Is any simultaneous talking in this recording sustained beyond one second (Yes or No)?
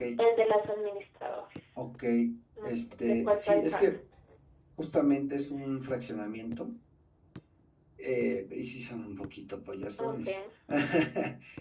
Yes